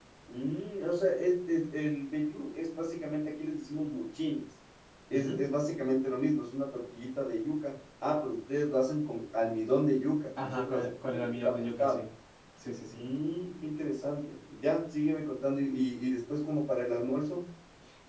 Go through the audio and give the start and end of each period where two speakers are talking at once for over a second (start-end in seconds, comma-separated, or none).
10.4-12.0